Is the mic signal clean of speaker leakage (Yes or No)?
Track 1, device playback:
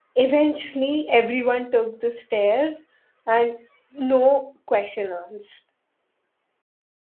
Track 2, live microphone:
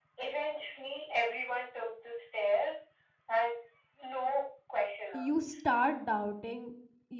No